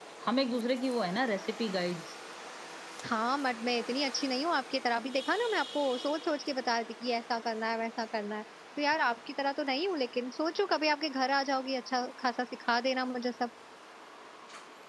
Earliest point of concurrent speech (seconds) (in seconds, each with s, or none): none